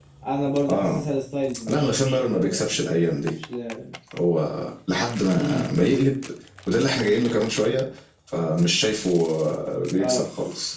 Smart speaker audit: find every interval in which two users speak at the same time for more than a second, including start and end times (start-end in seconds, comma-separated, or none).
1.7-3.3